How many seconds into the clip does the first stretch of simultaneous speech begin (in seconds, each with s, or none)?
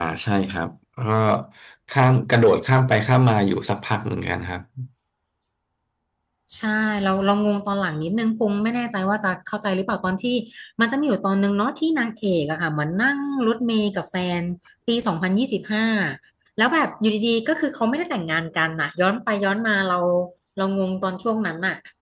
none